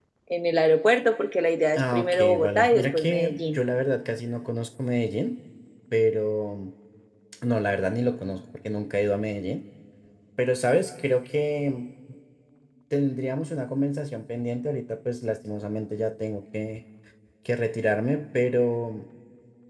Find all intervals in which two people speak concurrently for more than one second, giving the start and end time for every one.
1.8-3.6

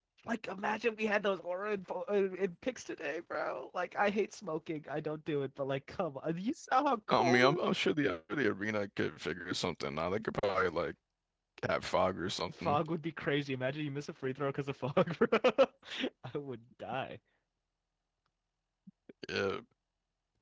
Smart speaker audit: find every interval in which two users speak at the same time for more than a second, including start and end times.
none

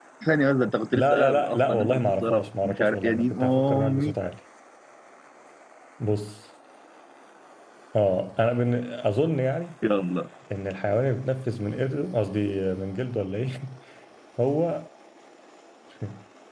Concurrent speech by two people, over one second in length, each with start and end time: 0.9-4.1

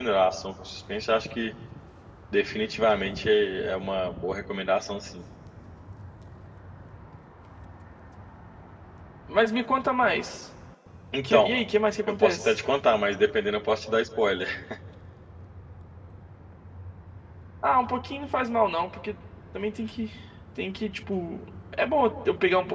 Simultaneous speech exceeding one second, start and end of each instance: none

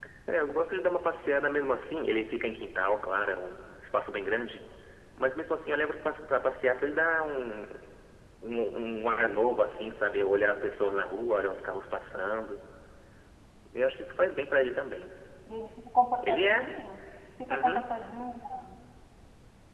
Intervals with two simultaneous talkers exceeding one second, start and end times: none

